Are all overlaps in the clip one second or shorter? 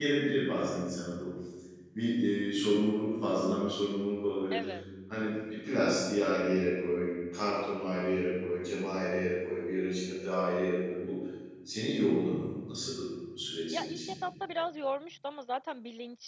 Yes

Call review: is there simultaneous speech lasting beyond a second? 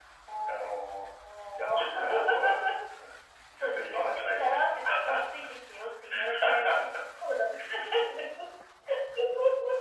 Yes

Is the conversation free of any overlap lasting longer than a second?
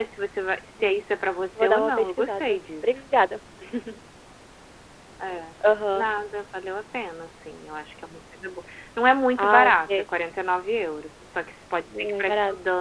No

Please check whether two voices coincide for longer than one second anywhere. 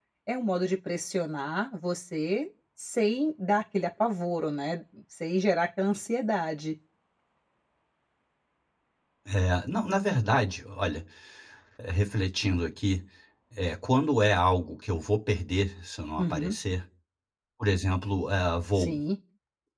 No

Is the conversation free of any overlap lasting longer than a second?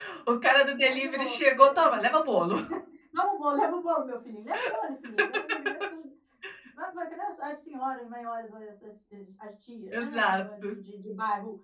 No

